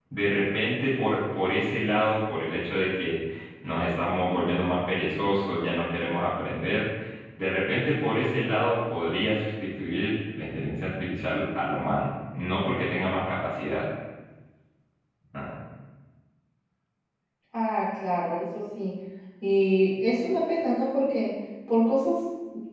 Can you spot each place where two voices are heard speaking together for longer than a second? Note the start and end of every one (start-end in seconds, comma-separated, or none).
none